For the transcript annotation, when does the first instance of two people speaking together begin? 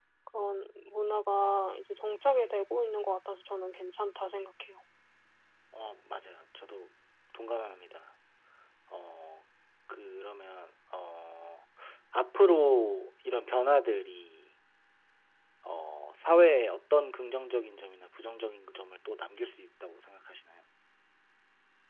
none

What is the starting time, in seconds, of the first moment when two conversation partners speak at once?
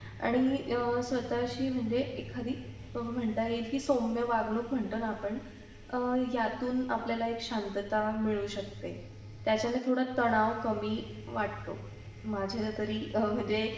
none

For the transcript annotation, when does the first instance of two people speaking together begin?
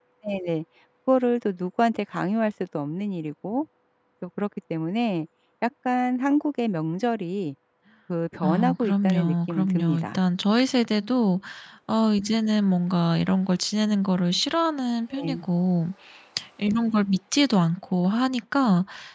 8.4 s

